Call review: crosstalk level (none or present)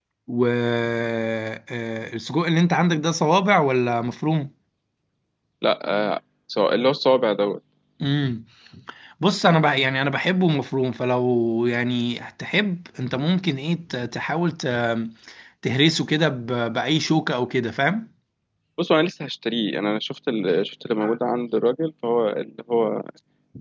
none